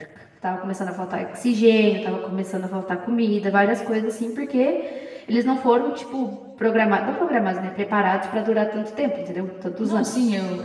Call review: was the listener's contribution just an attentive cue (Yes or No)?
No